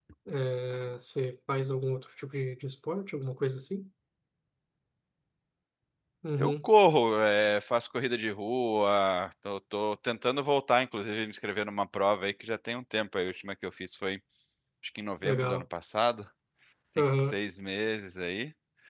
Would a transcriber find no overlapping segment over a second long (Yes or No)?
Yes